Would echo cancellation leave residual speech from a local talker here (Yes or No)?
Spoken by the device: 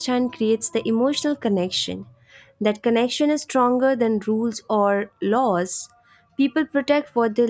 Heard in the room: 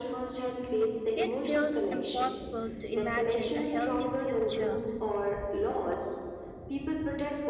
Yes